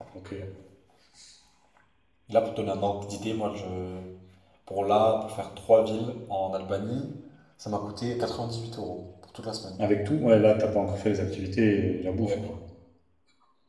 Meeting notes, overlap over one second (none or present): none